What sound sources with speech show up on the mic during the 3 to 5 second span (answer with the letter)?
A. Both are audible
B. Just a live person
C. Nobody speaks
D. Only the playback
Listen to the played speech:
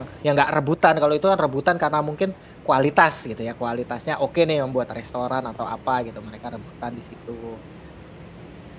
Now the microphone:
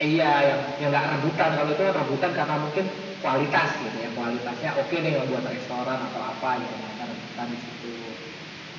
D